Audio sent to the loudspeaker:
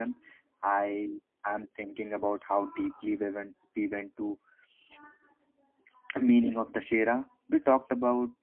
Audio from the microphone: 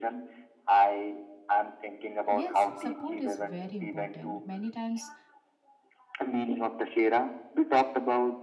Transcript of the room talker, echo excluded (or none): Yes, support is very important. Many times,